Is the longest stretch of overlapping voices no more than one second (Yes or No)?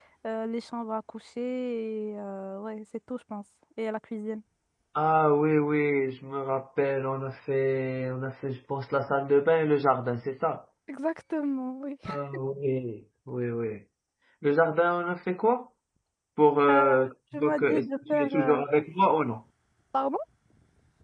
No